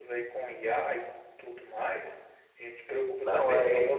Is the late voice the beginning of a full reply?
No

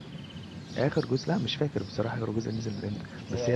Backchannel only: Yes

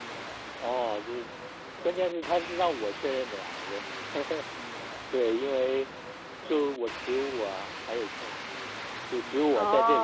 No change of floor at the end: Yes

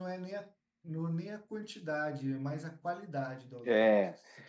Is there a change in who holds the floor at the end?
Yes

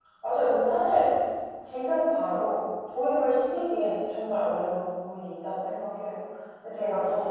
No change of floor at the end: Yes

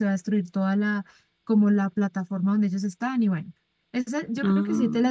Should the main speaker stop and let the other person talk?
No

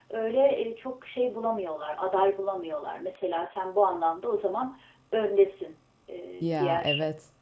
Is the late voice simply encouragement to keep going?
Yes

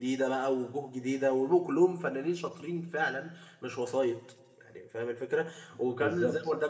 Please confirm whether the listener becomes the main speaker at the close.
No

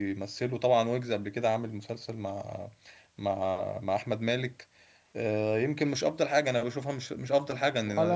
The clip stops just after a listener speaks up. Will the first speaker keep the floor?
No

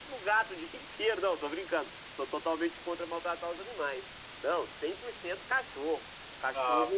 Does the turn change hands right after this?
No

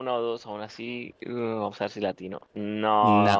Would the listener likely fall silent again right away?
No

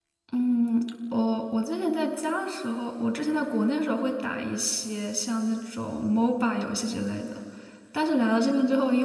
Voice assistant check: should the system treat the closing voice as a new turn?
No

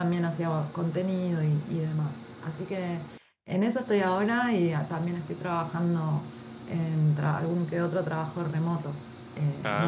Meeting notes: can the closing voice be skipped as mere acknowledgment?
Yes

